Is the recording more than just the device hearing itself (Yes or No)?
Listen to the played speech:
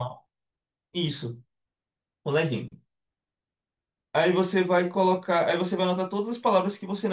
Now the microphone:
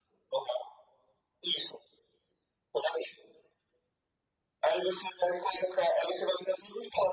No